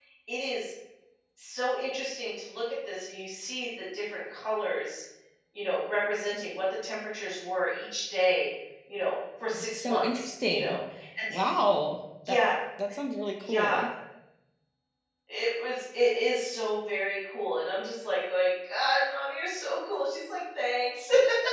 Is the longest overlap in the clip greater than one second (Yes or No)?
Yes